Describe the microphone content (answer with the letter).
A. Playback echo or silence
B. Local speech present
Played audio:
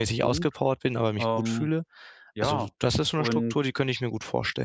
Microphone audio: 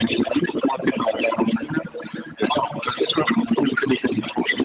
A